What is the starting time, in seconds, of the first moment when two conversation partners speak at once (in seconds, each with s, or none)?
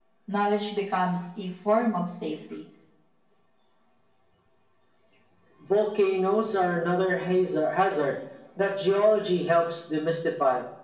none